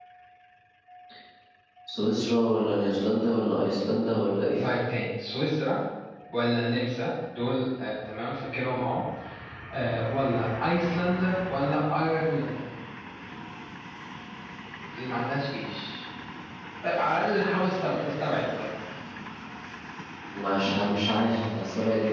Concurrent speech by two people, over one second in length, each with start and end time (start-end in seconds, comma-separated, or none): none